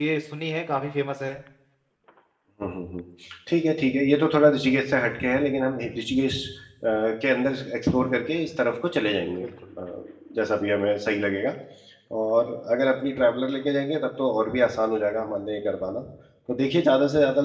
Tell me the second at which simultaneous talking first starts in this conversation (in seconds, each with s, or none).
none